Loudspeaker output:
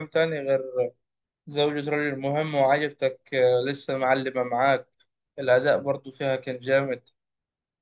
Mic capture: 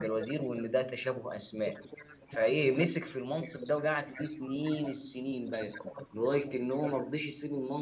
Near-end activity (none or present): present